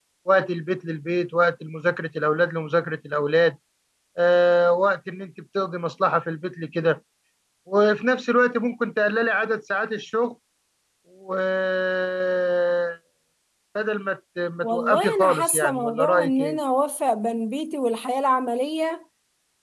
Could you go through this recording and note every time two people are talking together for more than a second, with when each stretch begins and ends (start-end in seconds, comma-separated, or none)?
14.6-16.6